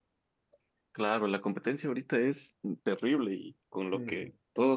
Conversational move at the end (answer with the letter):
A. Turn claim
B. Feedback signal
B